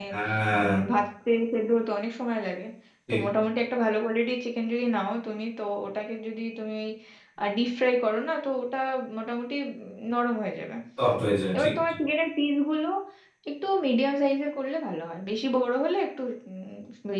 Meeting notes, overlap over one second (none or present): none